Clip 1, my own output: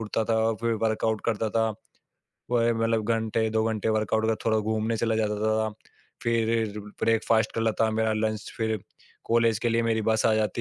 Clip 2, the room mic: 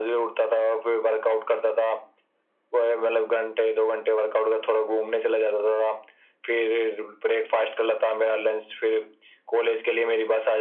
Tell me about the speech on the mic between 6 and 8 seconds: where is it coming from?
echo only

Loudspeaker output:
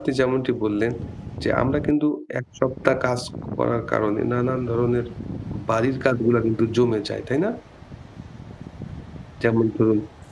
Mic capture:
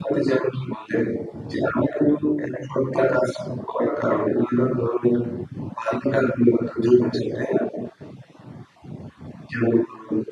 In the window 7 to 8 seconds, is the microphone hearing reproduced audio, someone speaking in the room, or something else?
echo only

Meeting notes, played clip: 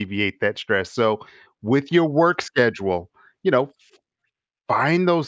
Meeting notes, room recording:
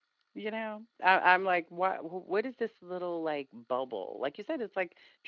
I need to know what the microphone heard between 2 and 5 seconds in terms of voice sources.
user only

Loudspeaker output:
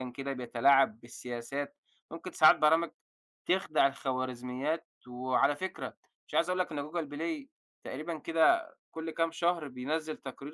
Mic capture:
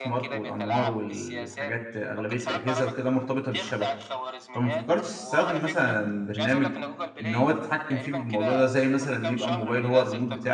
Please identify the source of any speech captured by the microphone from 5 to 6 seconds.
both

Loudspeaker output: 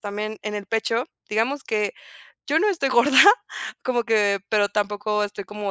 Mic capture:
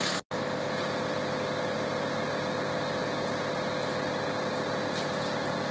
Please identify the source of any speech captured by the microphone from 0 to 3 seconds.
neither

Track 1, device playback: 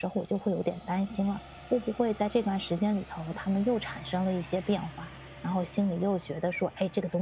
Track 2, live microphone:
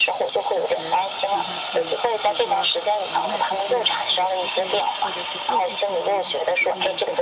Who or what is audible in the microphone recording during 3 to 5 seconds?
both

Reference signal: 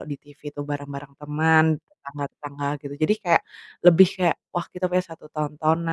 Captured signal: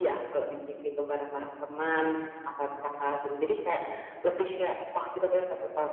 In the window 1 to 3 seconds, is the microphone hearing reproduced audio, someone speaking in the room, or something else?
echo only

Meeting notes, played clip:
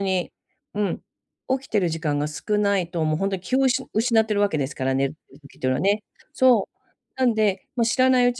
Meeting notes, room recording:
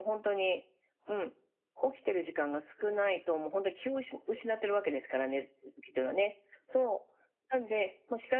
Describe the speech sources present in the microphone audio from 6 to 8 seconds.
echo only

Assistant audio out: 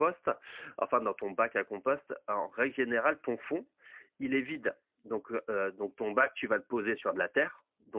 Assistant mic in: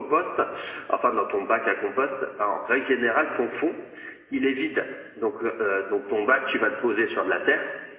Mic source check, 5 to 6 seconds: echo only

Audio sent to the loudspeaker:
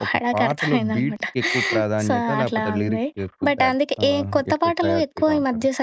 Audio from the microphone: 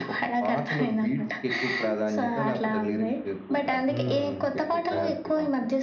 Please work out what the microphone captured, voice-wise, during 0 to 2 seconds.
echo only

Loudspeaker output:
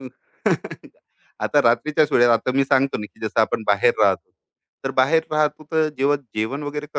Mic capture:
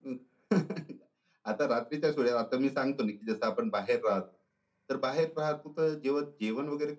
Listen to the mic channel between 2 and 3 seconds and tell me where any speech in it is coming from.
echo only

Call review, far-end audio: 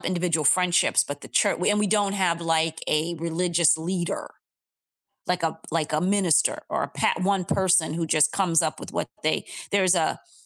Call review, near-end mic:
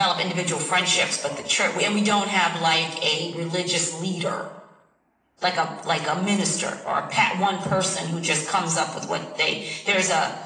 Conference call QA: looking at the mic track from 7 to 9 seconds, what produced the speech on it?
echo only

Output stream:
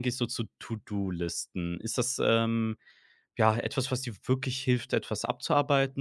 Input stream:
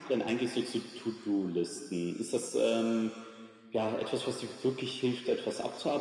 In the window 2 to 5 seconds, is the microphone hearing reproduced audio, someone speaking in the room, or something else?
echo only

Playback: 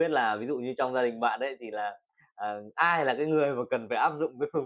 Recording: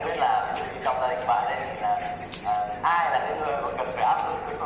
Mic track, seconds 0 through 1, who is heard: echo only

